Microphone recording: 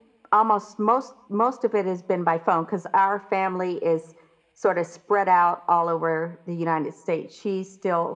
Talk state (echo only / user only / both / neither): echo only